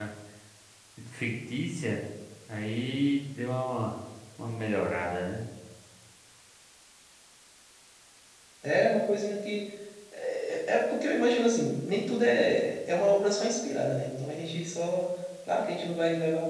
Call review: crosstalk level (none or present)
none